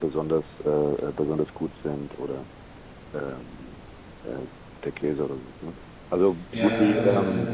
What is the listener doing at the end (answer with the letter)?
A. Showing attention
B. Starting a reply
B